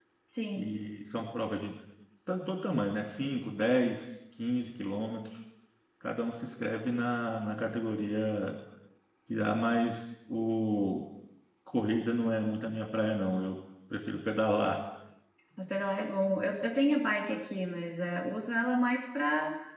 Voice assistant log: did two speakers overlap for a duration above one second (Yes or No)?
No